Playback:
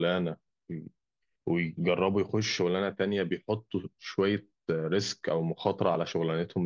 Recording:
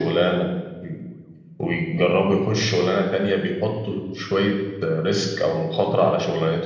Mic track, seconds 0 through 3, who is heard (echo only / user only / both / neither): echo only